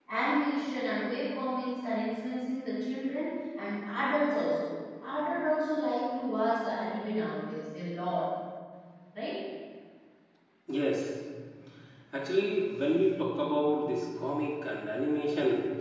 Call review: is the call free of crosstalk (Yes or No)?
Yes